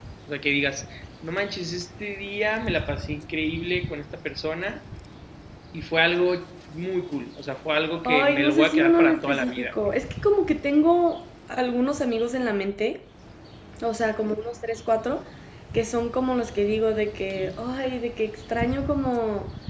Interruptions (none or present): present